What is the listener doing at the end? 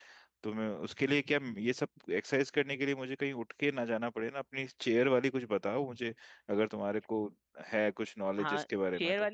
taking over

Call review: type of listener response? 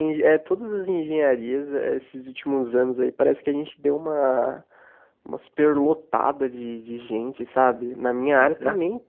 listening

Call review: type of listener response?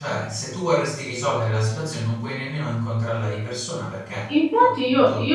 taking over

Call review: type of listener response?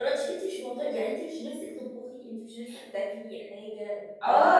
taking over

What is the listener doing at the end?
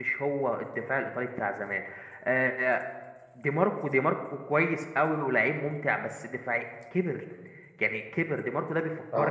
listening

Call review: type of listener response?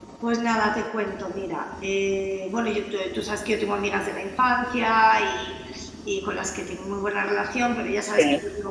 listening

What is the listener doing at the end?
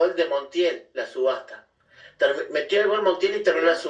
listening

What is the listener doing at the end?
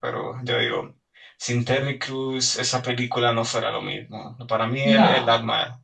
listening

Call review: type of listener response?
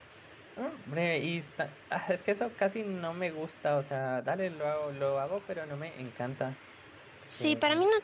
taking over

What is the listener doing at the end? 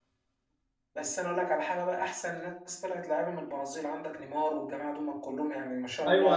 taking over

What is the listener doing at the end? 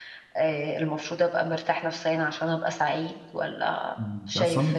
taking over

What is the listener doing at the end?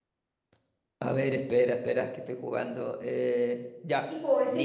taking over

